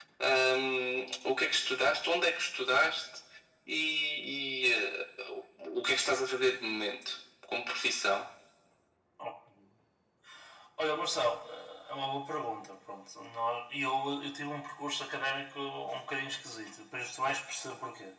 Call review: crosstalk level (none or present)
none